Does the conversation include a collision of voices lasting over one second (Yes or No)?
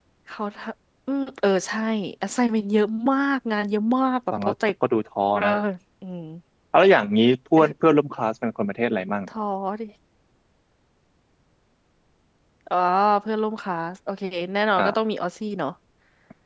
No